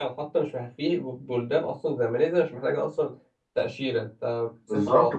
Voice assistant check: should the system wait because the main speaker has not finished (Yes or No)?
No